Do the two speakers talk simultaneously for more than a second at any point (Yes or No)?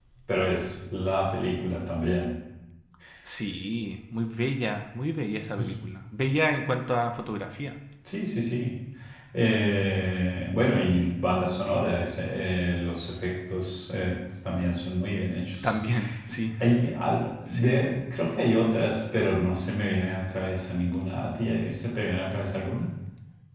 No